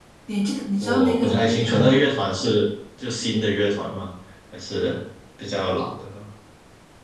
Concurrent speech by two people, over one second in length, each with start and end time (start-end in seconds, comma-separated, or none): 0.8-2.0